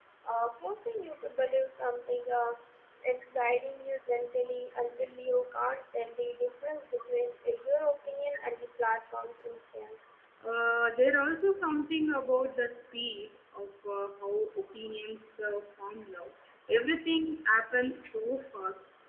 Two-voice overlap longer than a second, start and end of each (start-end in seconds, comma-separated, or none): none